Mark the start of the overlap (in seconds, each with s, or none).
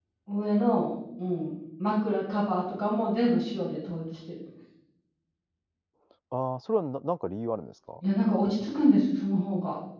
none